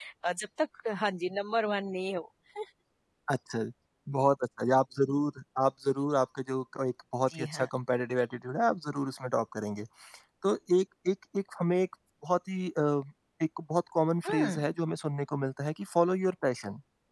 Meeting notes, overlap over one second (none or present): none